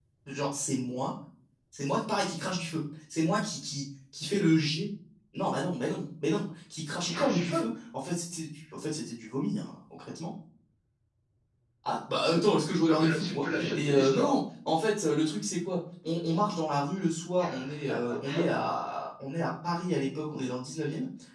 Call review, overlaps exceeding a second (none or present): present